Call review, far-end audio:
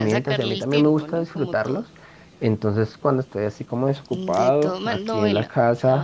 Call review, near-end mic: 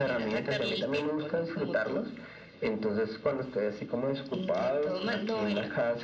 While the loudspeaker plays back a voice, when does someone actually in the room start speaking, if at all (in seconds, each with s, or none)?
none